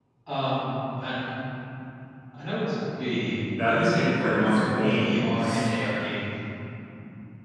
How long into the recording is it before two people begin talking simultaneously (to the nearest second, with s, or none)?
4 s